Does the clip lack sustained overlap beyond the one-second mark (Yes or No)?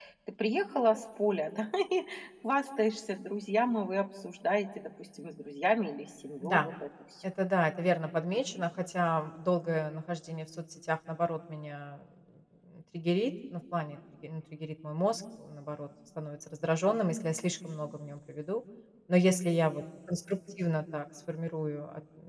Yes